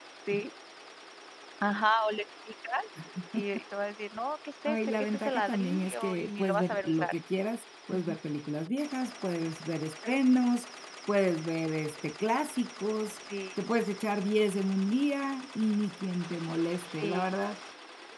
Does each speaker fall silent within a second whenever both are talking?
No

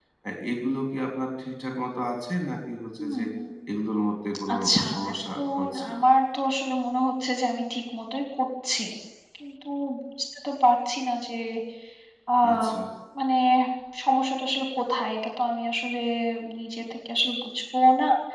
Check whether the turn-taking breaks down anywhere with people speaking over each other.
Yes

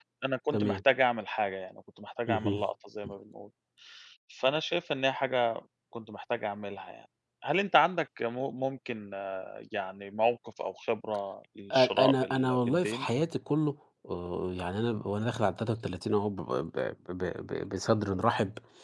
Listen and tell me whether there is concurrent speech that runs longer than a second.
Yes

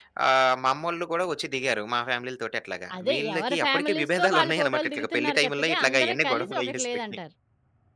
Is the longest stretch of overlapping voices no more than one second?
No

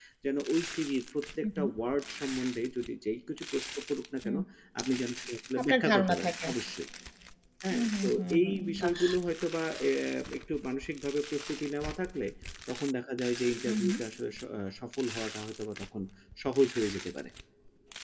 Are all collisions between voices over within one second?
No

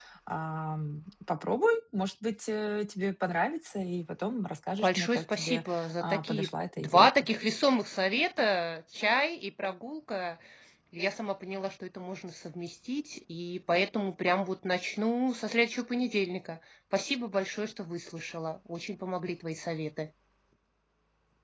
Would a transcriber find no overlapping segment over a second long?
No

